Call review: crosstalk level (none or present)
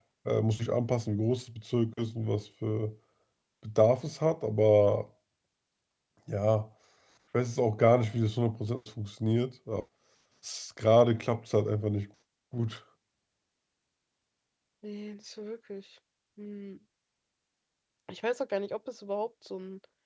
none